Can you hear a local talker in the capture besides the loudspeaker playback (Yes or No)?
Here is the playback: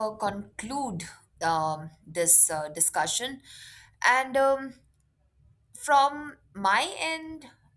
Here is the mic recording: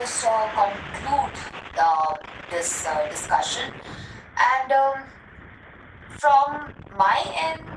No